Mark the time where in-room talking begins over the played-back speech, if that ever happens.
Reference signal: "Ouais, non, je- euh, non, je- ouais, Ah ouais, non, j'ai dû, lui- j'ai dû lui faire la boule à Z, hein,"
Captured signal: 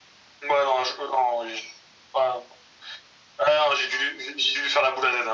none

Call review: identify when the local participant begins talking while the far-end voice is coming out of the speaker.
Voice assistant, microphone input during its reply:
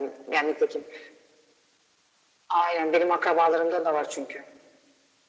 none

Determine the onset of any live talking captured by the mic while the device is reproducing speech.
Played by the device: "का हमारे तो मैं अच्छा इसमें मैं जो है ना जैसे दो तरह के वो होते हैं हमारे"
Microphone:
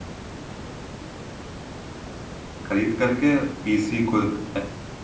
2.7 s

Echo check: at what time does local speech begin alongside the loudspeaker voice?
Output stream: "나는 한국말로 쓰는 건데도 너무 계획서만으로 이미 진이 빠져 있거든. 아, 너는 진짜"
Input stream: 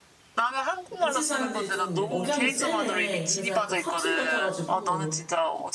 1.0 s

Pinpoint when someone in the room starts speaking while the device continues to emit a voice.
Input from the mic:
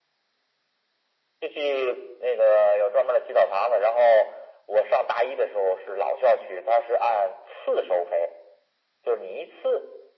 none

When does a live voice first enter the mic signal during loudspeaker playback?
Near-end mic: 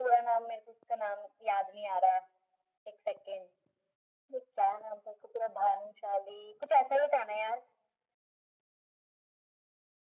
none

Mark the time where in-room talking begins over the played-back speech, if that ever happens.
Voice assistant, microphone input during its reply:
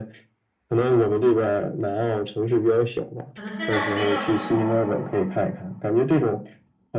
3.3 s

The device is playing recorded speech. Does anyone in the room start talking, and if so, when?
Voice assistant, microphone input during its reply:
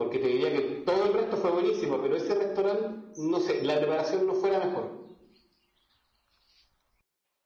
none

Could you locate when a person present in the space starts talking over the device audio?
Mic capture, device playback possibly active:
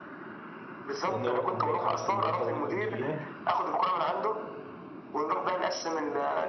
1.0 s

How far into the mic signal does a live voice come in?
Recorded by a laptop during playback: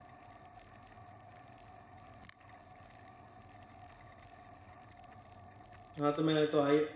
6.0 s

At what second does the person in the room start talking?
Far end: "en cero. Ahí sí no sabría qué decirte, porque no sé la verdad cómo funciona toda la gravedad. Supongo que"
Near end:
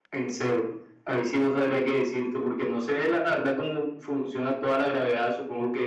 none

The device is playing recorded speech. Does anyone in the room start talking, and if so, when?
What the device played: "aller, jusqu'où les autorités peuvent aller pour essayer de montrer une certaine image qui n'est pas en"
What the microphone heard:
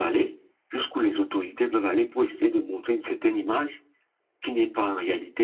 none

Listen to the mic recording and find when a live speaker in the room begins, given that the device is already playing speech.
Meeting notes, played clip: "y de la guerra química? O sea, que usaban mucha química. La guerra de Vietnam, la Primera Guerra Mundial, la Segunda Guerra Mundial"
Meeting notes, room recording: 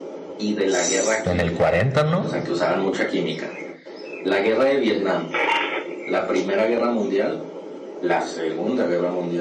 0.7 s

